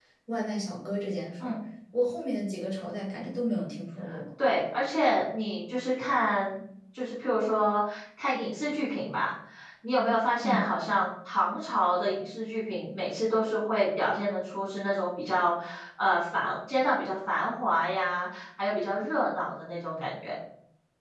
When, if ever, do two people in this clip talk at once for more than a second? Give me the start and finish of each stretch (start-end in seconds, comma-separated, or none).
none